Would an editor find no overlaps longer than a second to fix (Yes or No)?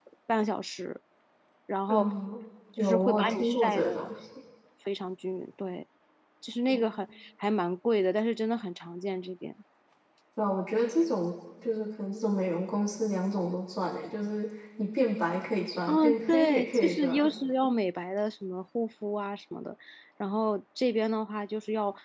No